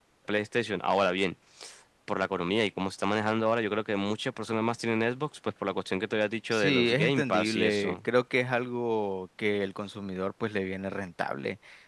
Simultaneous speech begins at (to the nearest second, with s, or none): 7 s